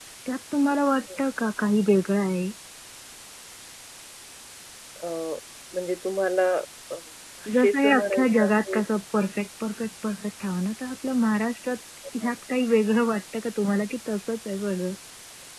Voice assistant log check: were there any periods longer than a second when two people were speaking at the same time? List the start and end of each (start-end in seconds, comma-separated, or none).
7.5-8.8